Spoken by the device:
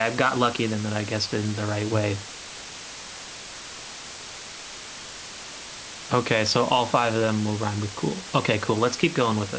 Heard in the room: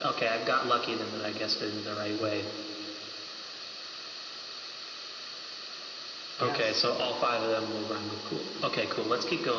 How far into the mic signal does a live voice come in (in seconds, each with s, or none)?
6.4 s